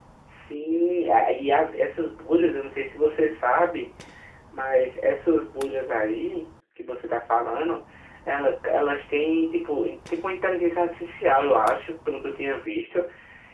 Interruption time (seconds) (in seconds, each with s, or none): none